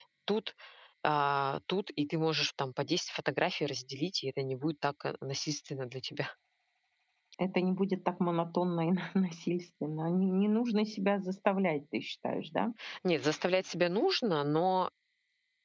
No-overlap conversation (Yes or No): Yes